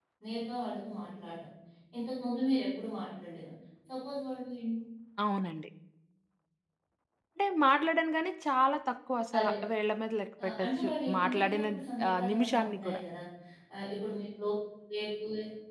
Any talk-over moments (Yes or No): Yes